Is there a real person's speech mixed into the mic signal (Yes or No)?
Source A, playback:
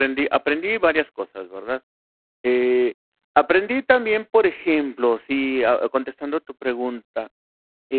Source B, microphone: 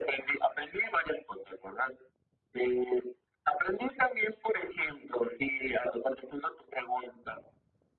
No